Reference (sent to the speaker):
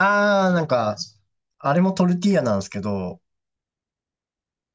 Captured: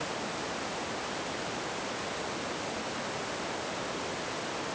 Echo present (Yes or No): No